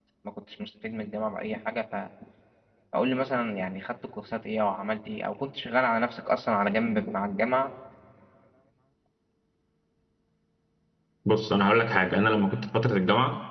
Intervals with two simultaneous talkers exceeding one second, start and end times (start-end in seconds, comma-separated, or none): none